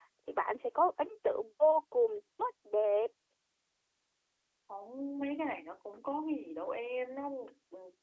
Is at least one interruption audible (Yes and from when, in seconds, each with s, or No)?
No